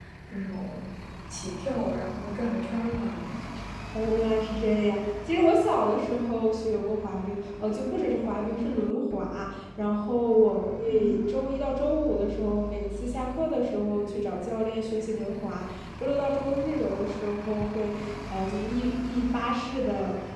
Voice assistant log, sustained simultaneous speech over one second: none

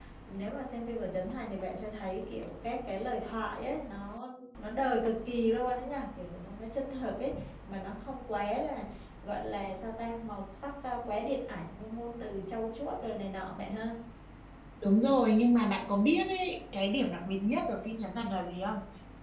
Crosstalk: none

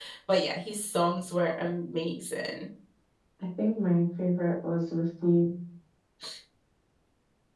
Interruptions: none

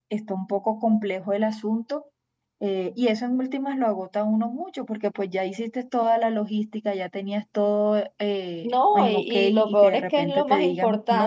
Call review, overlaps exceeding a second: present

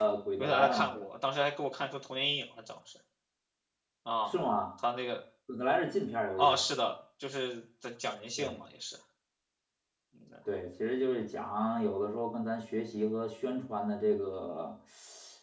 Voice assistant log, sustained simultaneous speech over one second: none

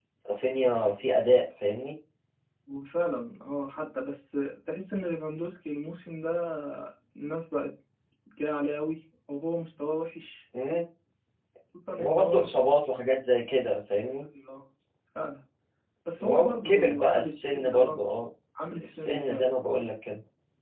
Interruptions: present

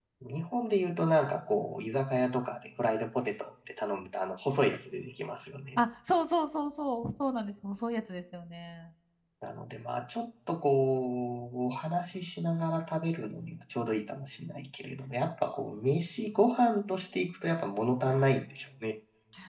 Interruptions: none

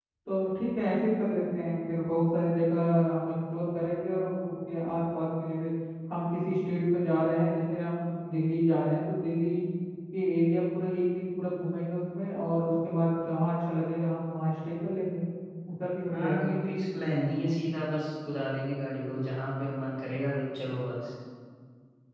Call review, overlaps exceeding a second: none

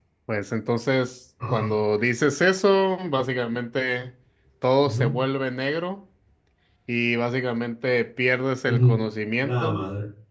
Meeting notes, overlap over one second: none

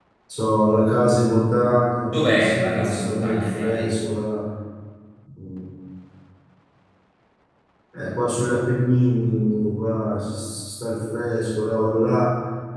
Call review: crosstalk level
present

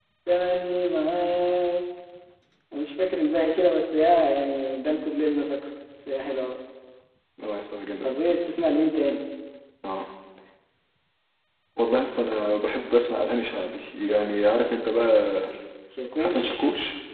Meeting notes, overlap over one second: none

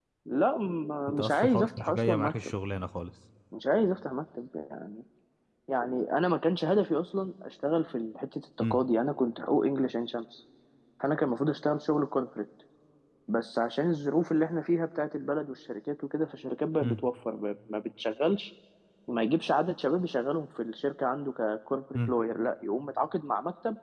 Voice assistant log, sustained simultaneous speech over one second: present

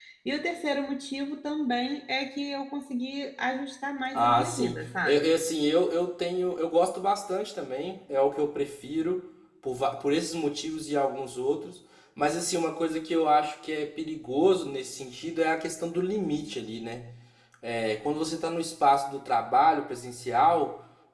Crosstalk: present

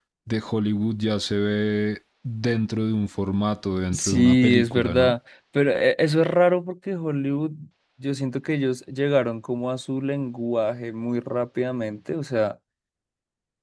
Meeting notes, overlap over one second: present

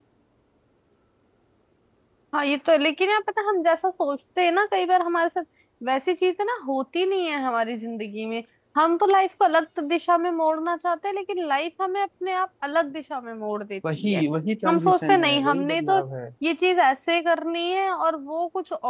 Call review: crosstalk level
present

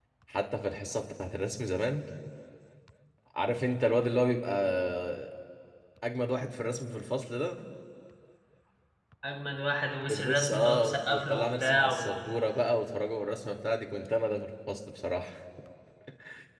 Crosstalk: present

